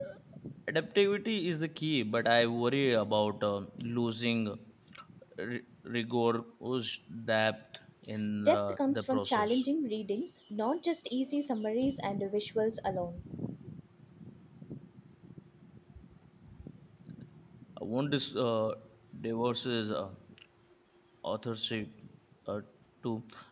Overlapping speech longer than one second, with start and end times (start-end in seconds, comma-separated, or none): 8.4-9.6